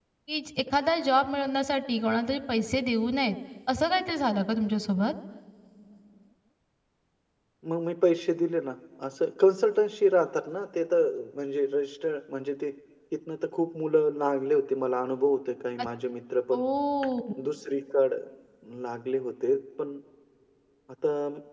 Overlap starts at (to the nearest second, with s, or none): none